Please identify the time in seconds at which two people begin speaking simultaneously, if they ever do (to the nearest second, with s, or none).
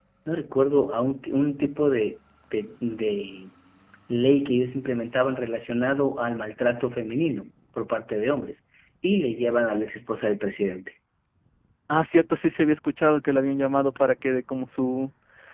none